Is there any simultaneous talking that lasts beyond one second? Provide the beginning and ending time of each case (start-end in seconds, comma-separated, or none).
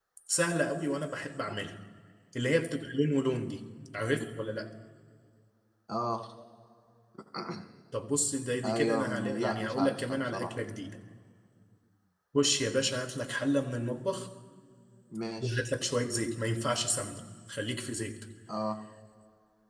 8.6-10.5